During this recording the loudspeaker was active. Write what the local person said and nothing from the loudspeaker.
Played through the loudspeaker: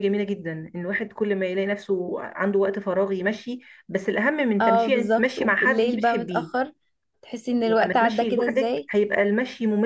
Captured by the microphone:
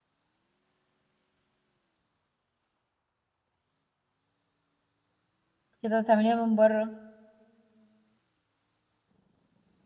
بعد كده تعمليها من بره

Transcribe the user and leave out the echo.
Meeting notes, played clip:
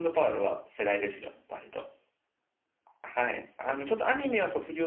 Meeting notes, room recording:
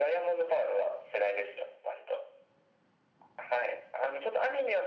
none

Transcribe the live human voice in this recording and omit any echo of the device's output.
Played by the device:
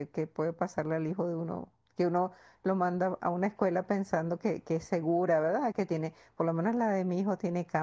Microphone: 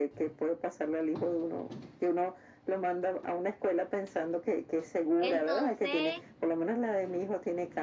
Entonces,

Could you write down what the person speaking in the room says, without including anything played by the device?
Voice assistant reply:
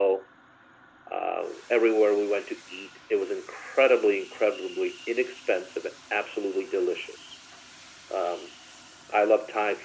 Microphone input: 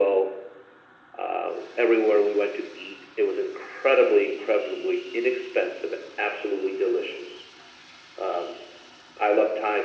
none

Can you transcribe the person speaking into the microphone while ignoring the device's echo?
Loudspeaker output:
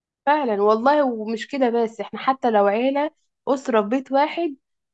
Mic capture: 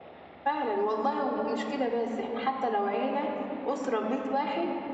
none

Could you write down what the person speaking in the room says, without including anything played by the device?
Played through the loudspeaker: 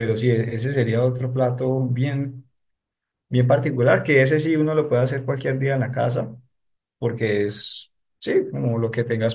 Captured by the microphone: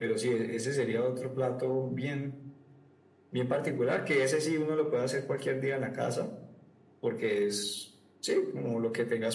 none

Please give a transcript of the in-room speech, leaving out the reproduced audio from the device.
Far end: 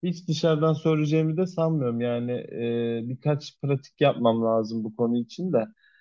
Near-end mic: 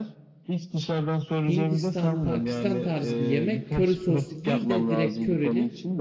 Hindistan, Pakistan tarzı bir yemek. Köri soslu değil de direkt körili.

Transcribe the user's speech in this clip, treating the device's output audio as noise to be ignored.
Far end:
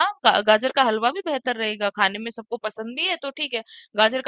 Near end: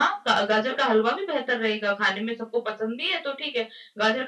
none

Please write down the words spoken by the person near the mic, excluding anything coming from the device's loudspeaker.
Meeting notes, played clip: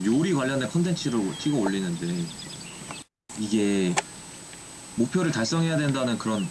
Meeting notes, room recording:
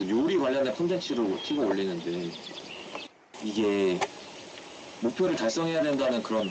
none

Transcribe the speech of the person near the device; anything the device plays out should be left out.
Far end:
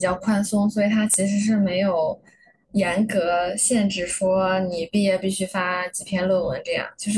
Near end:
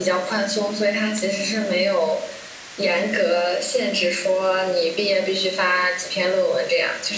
none

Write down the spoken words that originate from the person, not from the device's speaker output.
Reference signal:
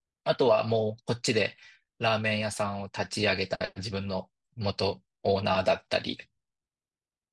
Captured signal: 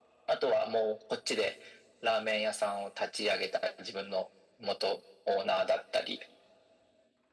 none

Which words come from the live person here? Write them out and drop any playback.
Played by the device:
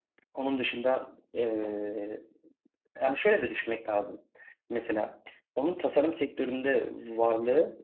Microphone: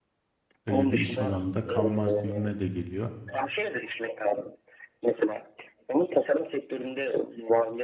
öyle bir iş alanında kalmaz gibime de geliyor.

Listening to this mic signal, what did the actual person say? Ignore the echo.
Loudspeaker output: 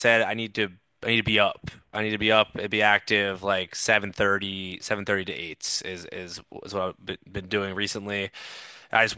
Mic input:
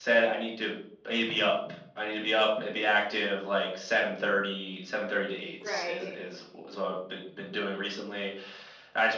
right,

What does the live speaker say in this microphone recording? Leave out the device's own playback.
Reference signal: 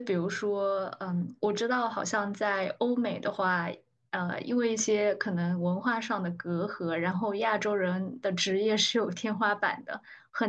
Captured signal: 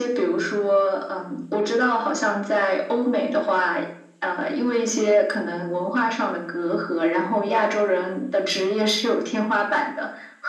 none

